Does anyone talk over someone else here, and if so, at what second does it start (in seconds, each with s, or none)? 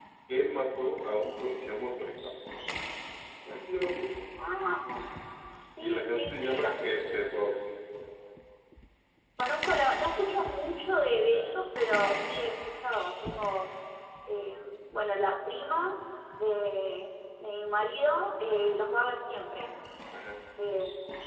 5.8 s